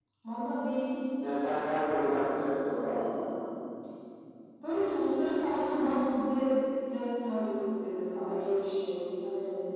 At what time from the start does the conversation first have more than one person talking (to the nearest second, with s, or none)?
none